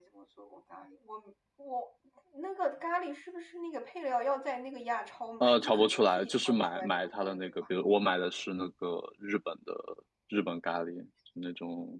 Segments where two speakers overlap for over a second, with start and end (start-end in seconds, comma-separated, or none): 5.4-7.5